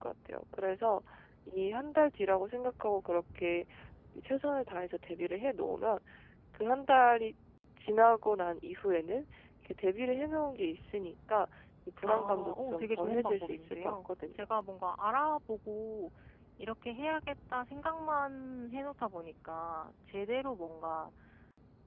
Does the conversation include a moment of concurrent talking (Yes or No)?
Yes